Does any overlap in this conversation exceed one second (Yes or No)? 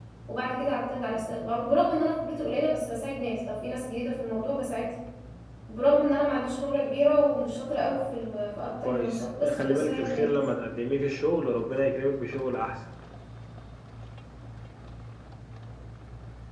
Yes